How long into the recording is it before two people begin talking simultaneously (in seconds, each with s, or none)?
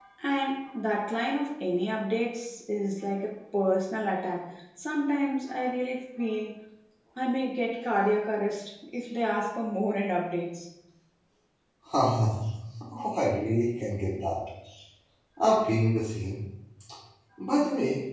none